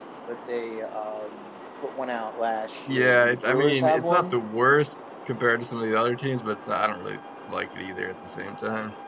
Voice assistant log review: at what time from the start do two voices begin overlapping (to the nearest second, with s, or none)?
3 s